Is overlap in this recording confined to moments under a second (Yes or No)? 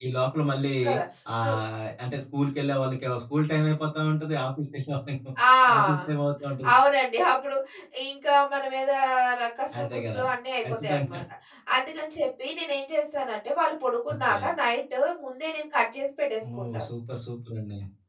Yes